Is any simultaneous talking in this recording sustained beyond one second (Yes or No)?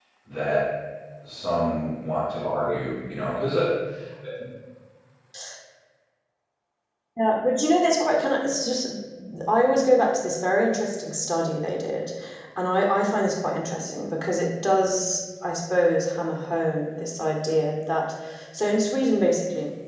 No